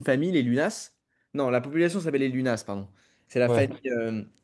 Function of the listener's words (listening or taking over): listening